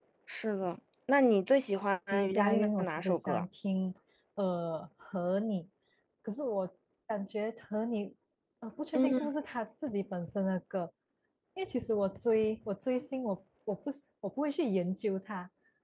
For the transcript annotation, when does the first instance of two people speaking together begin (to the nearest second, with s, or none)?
2 s